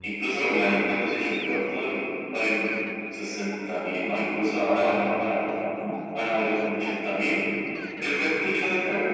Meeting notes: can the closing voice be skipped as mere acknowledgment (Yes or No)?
No